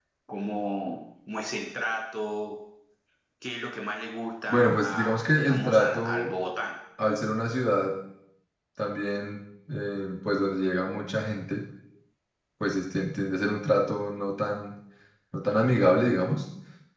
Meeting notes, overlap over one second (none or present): present